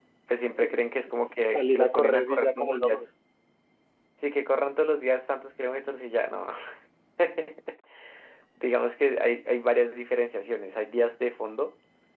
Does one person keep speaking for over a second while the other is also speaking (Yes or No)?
Yes